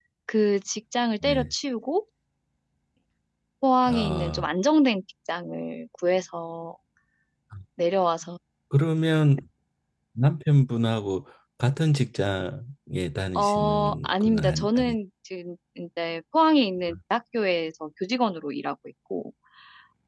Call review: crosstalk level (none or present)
present